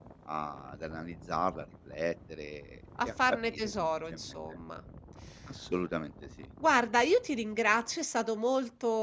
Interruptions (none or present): present